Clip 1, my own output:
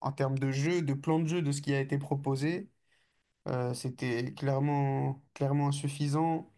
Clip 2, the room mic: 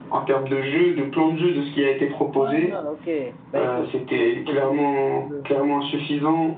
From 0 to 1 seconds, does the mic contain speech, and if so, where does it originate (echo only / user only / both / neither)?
echo only